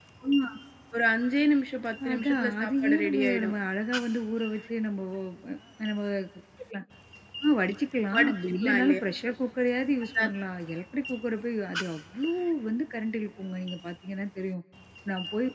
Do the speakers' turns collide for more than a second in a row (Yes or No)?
Yes